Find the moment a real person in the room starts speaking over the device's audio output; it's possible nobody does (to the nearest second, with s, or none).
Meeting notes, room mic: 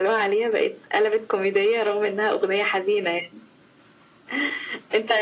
none